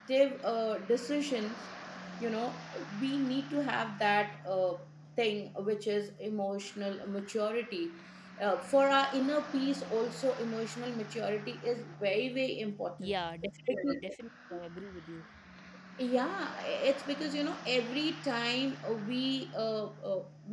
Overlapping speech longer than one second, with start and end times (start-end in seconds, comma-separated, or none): none